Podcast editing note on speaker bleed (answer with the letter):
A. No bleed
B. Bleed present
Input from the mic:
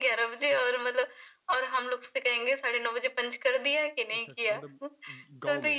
B